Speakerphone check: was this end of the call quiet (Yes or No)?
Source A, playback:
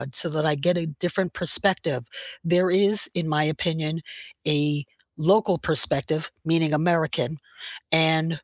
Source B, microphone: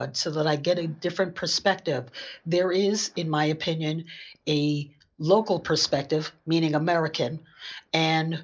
Yes